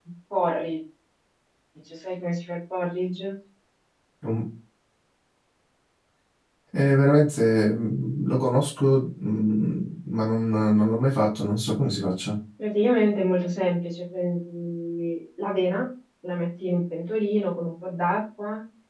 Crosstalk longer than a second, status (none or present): none